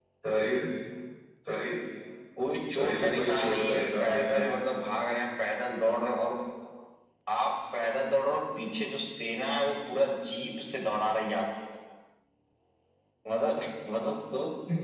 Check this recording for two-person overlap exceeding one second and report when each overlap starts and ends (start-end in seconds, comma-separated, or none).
2.8-4.5